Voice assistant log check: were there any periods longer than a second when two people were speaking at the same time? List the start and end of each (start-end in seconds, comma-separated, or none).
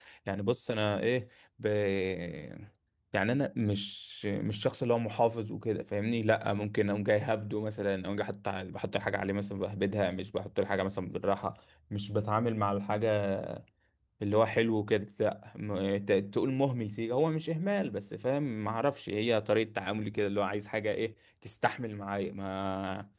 none